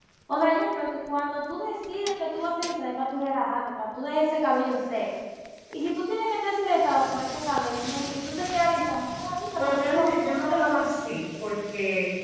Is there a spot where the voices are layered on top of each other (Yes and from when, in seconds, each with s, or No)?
Yes, from 9.6 s